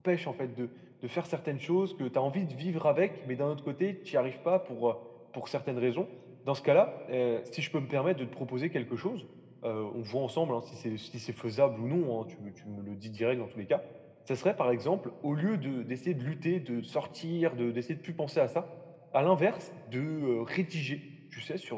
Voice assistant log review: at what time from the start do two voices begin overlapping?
none

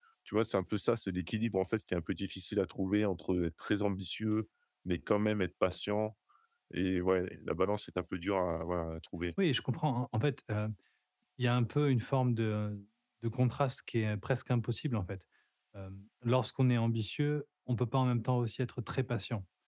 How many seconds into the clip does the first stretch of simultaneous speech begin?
none

